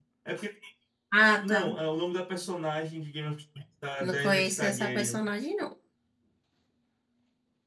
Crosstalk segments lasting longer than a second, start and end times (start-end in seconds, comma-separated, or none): 4.0-5.2